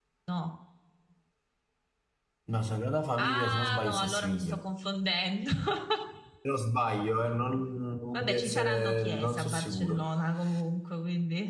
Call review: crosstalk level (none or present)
present